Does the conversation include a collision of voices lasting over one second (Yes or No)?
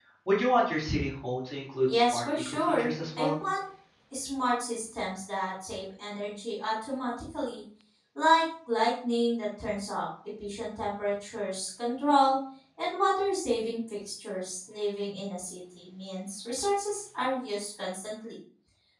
Yes